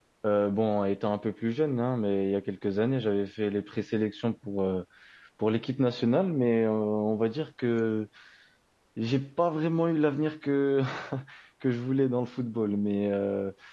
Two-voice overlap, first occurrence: none

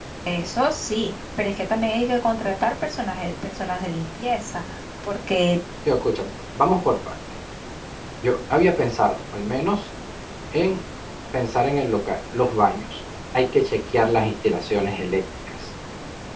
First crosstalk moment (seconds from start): none

